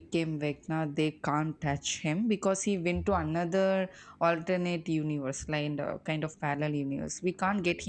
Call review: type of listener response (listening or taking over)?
listening